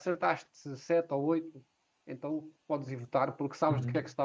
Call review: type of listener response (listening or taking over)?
taking over